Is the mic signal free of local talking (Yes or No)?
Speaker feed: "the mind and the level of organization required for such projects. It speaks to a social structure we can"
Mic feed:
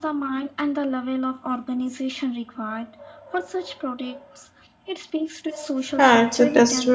No